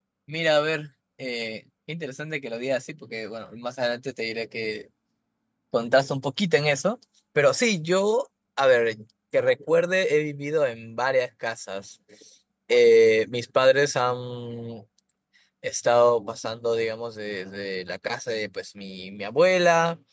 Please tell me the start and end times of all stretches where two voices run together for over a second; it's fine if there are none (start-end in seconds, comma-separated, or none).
none